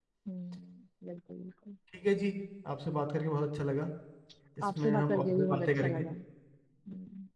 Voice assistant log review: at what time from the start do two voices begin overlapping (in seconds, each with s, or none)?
4.8 s